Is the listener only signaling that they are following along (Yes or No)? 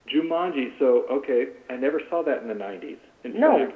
Yes